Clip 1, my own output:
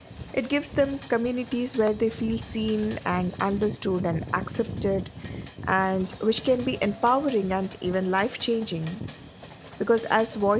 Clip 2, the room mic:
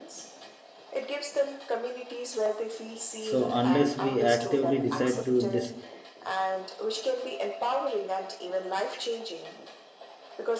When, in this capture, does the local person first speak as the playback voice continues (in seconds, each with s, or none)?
3.2 s